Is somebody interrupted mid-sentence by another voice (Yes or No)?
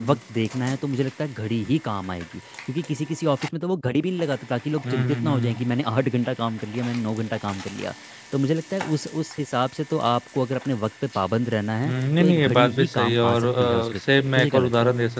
Yes